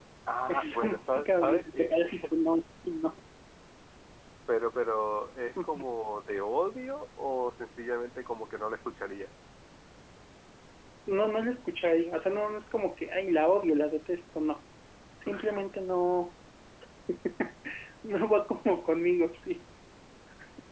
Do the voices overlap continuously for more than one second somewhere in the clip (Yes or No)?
Yes